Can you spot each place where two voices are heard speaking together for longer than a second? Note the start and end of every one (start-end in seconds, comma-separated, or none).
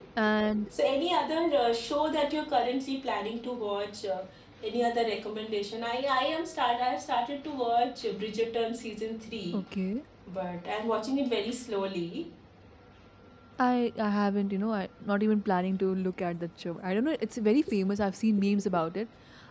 none